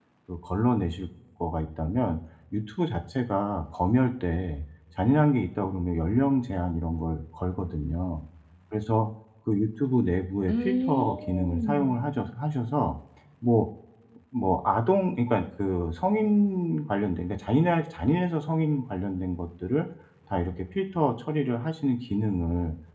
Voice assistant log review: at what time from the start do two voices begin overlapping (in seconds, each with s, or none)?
10.5 s